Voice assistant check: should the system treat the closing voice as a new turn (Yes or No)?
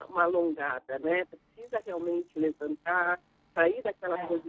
No